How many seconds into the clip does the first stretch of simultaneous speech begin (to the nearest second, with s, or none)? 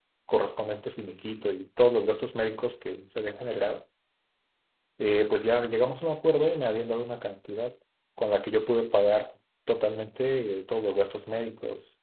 none